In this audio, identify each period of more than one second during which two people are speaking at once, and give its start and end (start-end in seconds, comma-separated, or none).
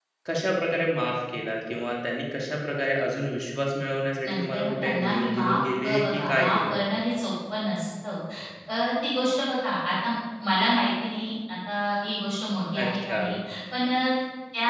4.2-6.8